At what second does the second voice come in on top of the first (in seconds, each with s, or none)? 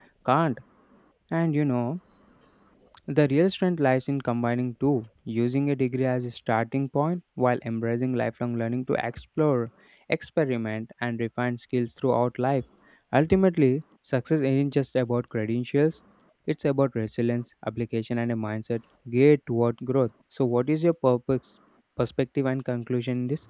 none